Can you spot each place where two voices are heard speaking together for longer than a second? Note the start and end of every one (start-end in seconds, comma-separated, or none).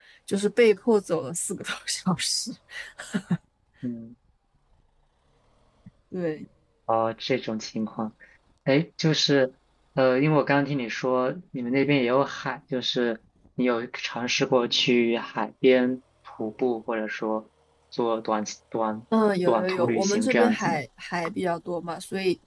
19.5-20.8